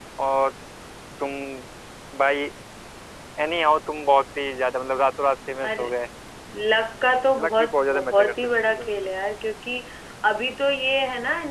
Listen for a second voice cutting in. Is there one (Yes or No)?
Yes